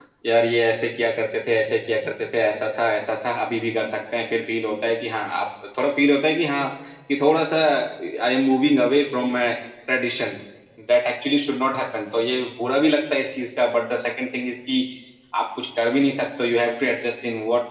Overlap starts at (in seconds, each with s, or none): none